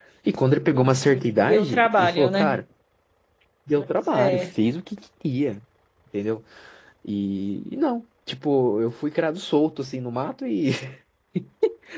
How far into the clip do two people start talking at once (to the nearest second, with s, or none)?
1 s